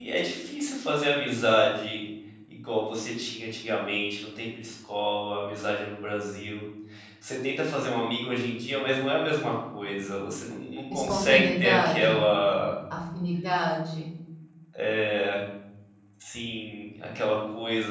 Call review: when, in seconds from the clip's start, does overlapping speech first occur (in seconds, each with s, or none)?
10.9 s